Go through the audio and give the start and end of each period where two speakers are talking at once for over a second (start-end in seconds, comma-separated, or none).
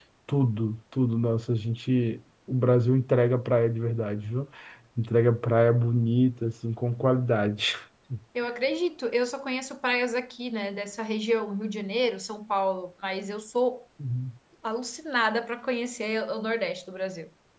none